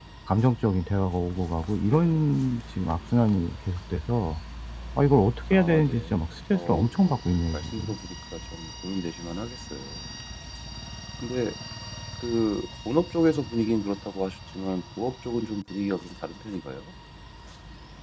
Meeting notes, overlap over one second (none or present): present